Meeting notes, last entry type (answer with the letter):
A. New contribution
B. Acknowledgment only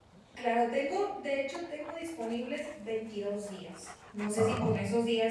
B